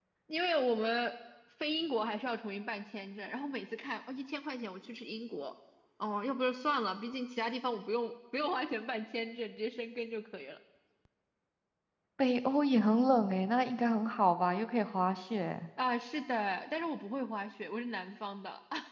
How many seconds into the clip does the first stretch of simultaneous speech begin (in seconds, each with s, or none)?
none